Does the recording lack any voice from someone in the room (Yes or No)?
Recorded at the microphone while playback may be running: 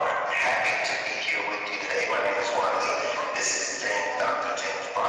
No